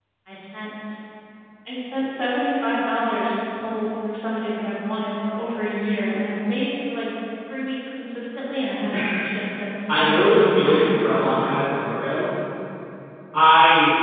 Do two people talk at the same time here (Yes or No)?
Yes